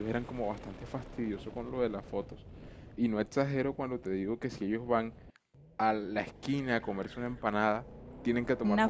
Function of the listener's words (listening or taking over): listening